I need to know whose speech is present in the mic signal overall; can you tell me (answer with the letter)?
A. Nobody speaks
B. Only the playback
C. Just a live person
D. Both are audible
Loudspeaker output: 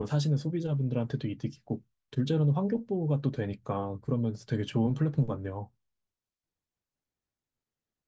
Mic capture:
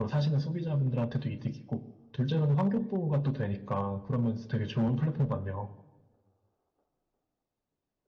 B